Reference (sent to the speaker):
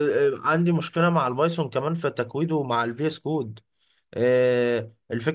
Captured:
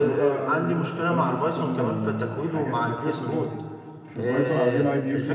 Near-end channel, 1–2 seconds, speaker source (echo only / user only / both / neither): both